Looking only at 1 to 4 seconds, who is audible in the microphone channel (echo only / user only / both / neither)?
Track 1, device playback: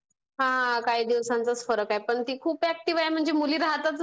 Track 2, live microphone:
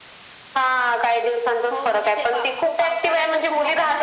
both